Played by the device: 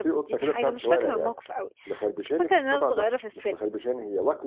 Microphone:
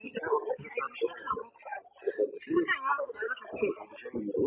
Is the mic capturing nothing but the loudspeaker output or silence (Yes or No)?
Yes